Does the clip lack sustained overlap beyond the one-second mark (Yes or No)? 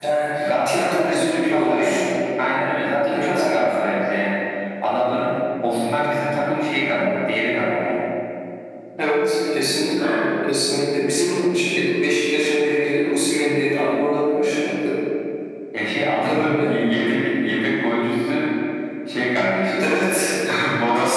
No